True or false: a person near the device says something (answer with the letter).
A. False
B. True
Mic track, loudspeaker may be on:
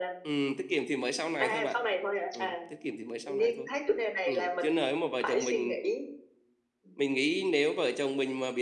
B